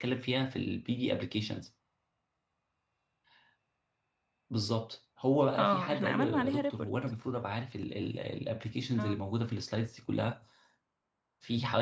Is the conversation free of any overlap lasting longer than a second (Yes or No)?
No